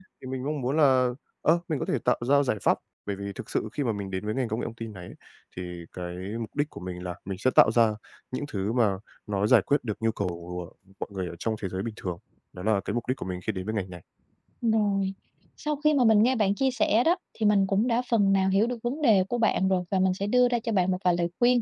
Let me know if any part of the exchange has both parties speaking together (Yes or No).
No